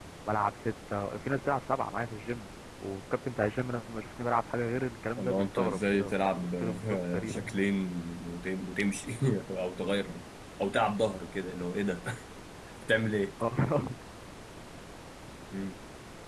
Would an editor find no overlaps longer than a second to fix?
No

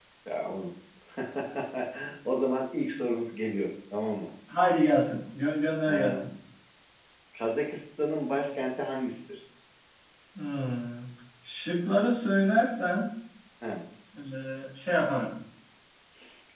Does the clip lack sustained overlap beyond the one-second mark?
Yes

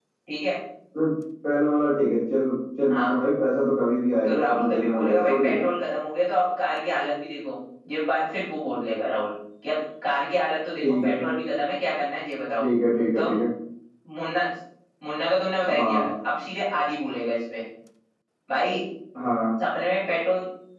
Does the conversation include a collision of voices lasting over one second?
Yes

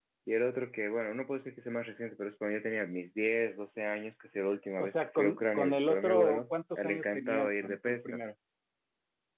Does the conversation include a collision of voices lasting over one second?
Yes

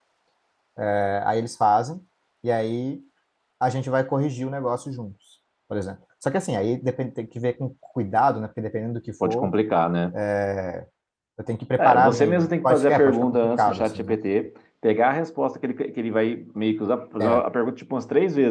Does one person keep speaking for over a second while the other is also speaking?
Yes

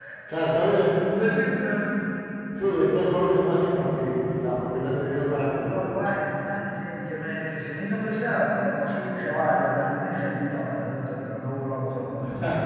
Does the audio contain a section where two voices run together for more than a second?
No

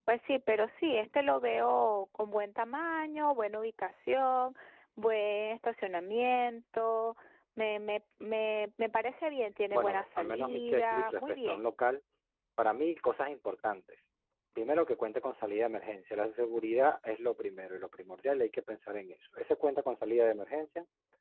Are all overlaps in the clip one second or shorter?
No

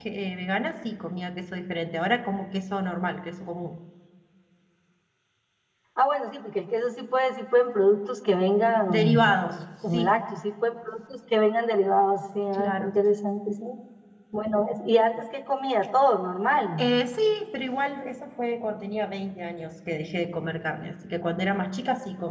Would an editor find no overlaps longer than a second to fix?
Yes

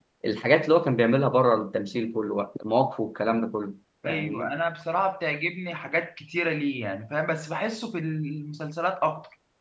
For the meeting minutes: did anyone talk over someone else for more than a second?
No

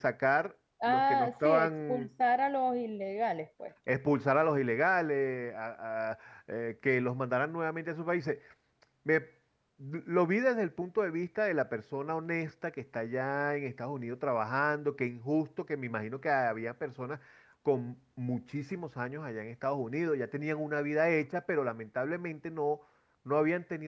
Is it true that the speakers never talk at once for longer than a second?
No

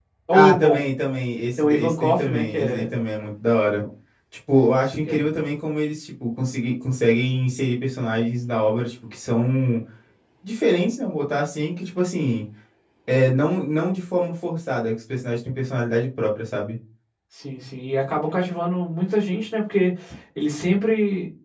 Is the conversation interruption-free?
No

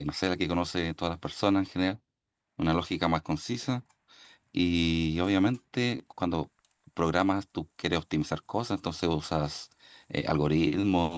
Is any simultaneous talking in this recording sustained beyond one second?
No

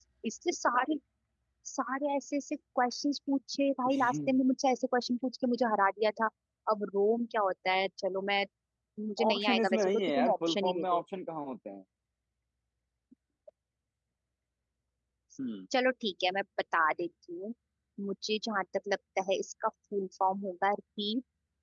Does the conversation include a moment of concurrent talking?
Yes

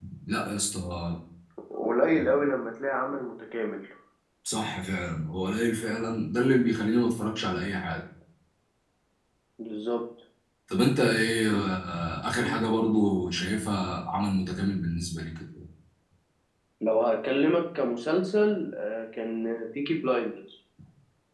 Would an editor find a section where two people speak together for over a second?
No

